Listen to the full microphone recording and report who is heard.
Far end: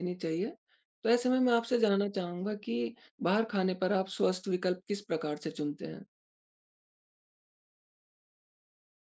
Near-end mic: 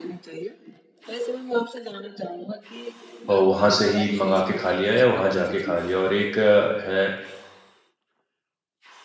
both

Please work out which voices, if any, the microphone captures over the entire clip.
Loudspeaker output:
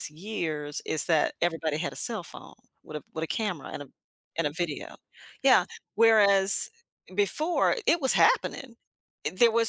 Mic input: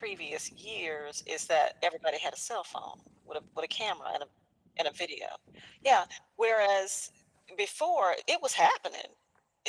echo only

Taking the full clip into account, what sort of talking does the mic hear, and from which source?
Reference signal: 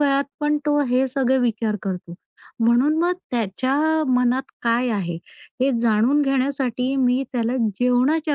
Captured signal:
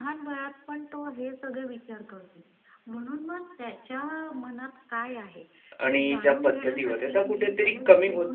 both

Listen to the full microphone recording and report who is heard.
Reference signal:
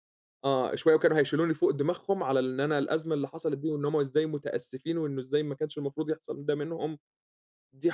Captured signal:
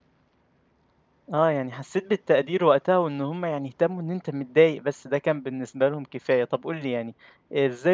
user only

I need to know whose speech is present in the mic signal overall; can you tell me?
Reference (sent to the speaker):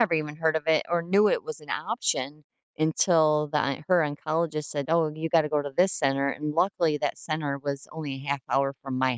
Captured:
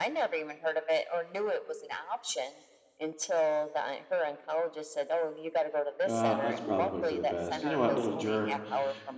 both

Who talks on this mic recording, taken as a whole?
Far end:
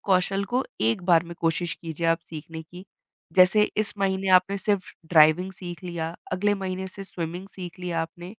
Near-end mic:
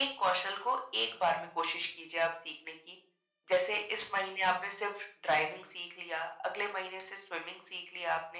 echo only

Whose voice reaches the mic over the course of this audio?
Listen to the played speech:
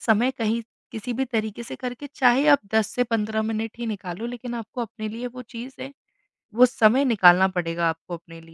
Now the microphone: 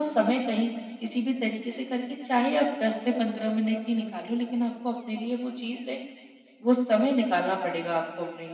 echo only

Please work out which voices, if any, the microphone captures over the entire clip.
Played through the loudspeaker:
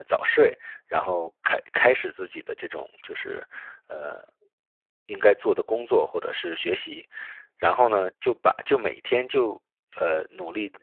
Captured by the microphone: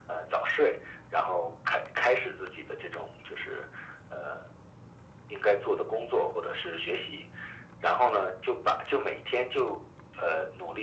echo only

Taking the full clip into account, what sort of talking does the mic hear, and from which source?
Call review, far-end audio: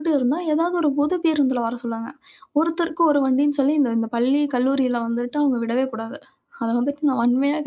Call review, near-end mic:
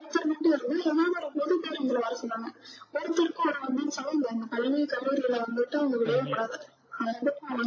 both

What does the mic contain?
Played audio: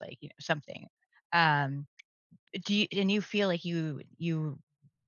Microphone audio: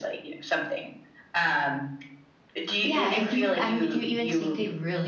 both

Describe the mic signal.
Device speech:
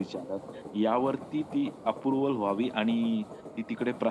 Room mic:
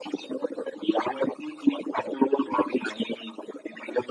echo only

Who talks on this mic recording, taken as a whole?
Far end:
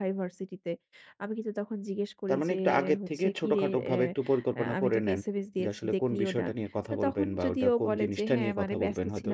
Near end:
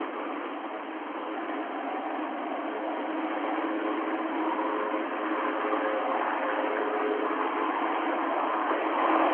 neither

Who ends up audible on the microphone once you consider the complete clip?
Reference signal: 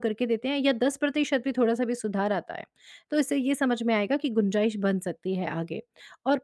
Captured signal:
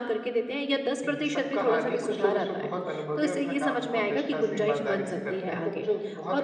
both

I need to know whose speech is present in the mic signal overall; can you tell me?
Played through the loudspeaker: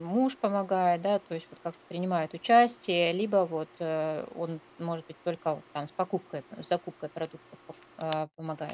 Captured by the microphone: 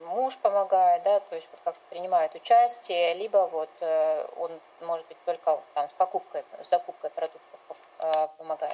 echo only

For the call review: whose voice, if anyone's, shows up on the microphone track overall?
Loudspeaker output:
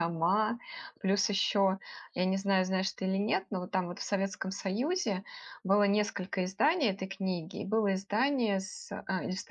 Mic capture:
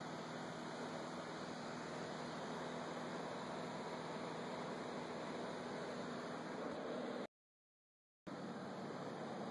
neither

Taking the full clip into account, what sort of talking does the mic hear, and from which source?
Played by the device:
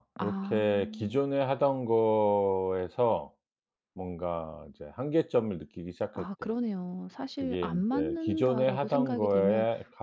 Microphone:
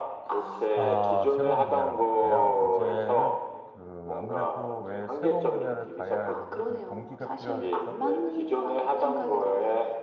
both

